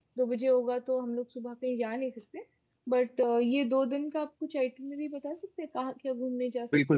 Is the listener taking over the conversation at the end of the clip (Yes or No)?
Yes